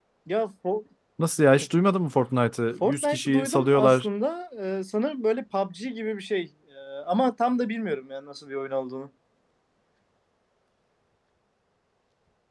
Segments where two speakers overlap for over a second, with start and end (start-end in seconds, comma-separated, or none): 2.8-4.1